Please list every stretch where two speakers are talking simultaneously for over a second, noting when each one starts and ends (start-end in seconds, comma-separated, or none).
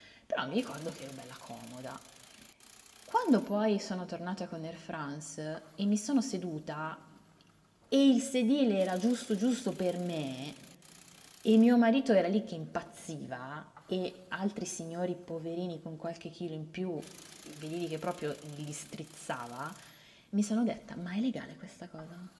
none